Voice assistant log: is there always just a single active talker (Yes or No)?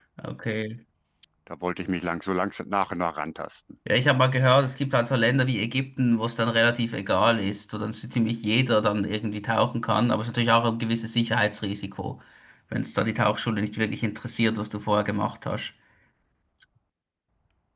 Yes